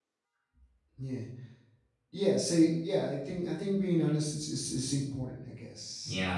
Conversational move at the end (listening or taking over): listening